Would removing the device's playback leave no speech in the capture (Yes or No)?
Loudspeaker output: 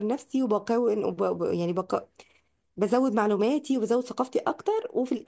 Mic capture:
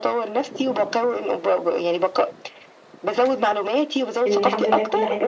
No